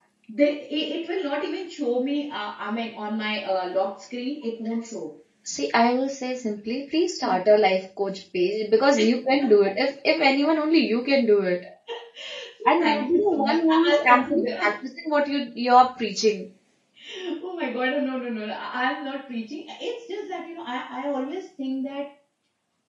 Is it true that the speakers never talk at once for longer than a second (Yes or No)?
No